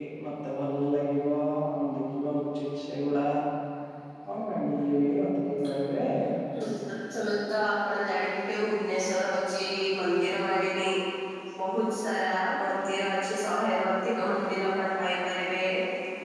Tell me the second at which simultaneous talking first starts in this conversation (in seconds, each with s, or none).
none